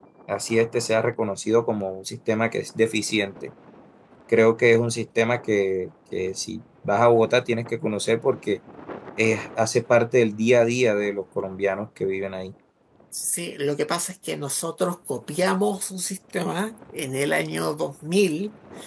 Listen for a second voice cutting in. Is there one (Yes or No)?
No